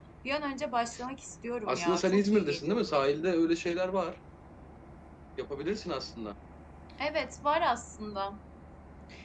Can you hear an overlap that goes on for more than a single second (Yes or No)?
Yes